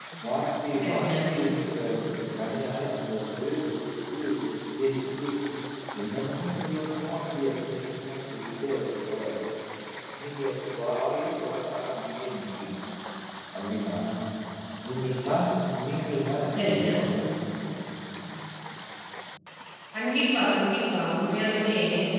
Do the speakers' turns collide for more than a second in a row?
No

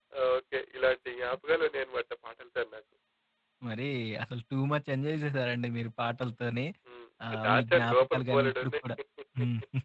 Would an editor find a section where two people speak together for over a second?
Yes, from 7.5 s

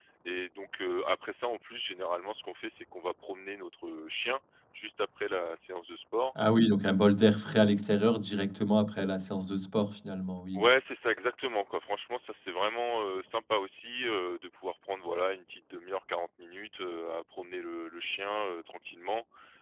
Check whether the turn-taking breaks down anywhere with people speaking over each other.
No

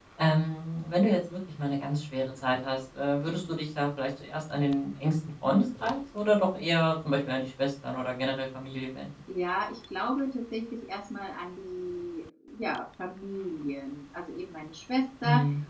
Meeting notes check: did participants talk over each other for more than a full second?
No

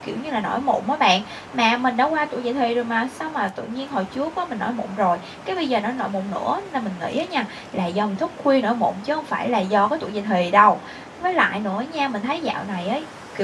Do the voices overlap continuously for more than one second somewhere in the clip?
No

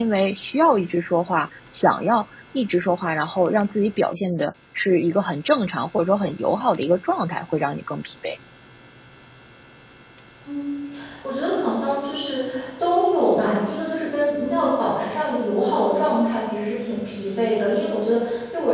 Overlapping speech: No

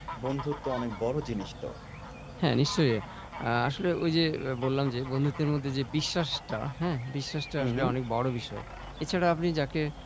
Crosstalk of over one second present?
No

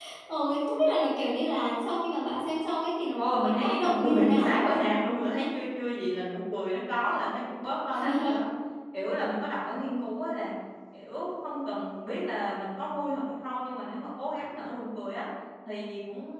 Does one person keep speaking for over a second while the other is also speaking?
Yes, from 3.2 s

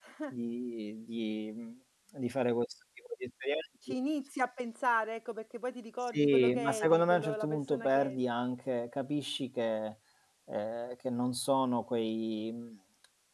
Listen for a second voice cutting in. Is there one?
Yes, from 6.0 s

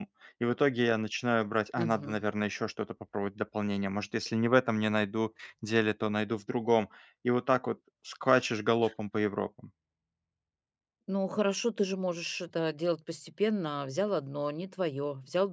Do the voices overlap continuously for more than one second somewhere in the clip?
No

